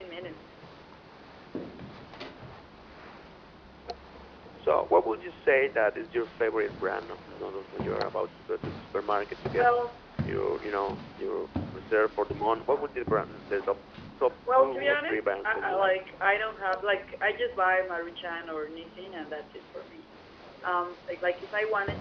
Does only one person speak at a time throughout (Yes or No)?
No